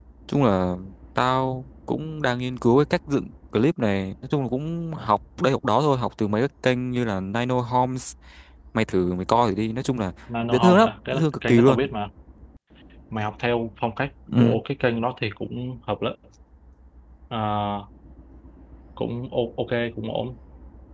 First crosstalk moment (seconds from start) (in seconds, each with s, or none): 10.5 s